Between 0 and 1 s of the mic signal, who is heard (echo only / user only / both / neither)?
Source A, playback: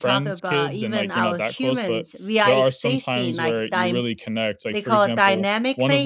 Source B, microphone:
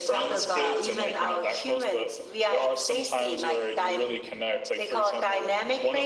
echo only